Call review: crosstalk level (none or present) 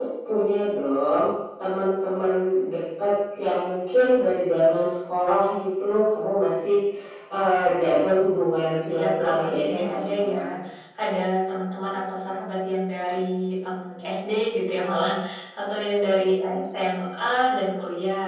present